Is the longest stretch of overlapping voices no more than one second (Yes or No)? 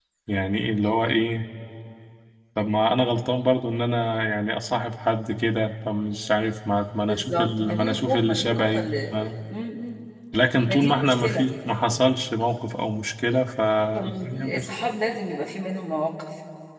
No